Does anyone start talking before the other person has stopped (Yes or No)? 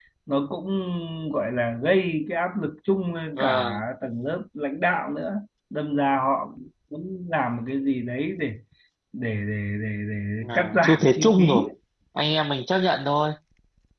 Yes